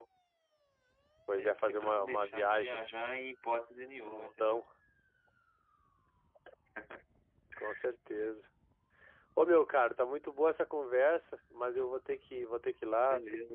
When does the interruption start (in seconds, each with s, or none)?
1.3 s